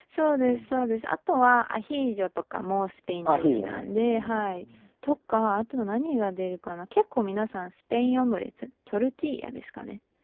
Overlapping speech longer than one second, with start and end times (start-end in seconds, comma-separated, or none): 3.4-4.6